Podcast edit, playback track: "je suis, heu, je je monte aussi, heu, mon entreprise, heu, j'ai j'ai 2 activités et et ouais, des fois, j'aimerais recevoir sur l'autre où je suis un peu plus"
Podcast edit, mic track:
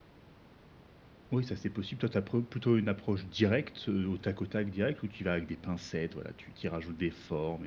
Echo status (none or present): none